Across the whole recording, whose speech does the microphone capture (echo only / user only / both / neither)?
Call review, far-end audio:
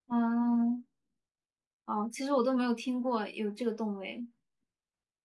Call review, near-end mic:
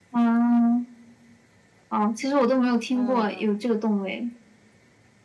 both